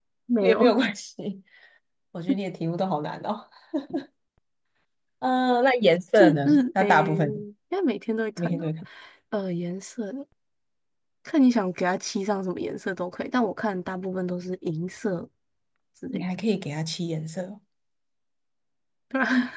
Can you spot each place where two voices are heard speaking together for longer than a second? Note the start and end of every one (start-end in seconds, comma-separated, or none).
6.2-7.4